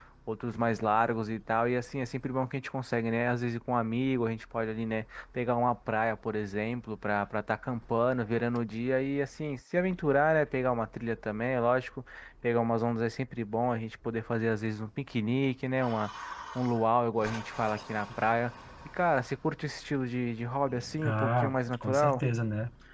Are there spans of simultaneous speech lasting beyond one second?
Yes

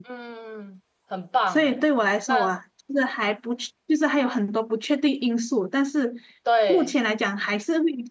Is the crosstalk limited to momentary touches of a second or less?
Yes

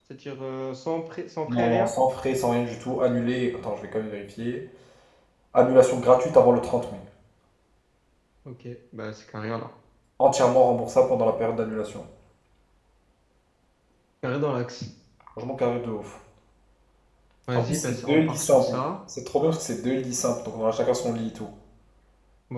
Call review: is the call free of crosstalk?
No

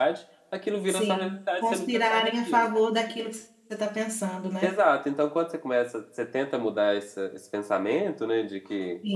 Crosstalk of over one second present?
Yes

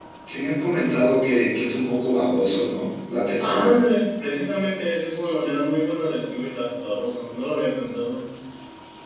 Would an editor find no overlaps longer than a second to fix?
Yes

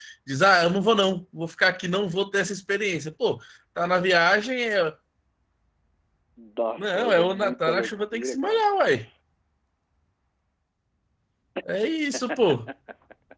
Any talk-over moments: Yes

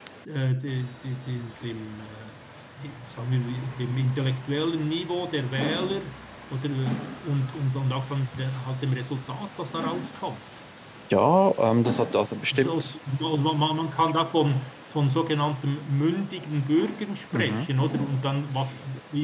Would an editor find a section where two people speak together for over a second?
No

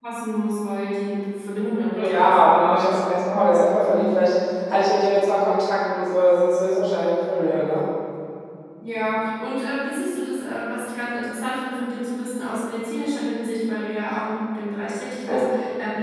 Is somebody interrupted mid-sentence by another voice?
Yes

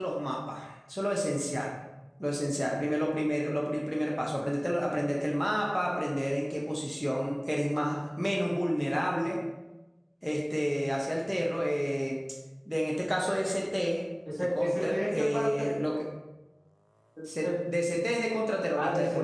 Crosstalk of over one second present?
Yes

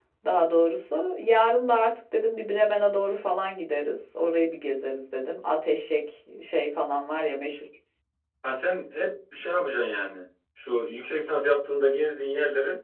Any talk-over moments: No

